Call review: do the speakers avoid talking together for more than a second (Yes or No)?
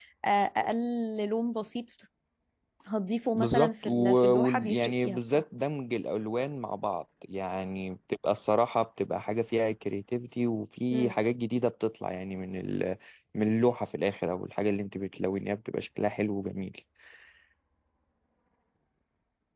No